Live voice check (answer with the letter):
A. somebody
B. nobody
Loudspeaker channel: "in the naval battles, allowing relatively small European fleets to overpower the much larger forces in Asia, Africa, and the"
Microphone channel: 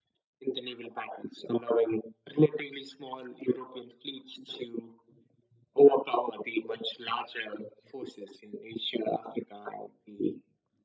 B